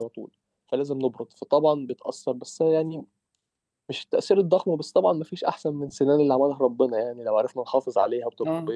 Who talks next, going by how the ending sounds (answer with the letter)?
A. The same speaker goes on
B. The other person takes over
A